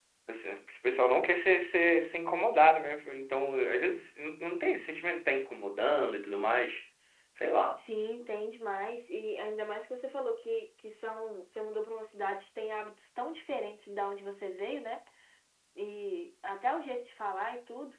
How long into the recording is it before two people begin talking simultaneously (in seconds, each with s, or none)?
none